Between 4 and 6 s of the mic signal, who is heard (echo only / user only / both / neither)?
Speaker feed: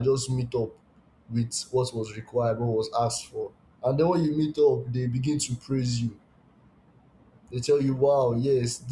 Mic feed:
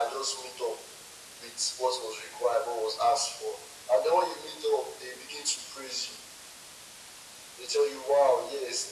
echo only